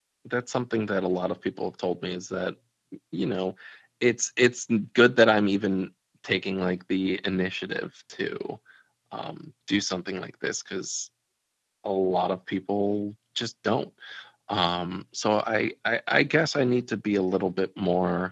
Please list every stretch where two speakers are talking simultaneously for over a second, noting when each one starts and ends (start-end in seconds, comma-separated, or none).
none